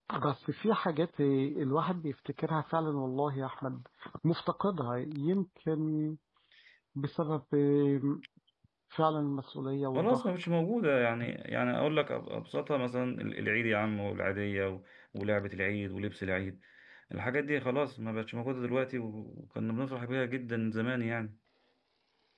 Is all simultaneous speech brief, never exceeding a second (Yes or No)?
Yes